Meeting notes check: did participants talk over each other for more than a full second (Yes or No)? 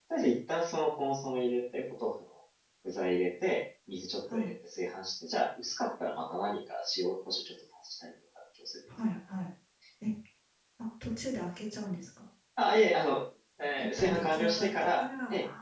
Yes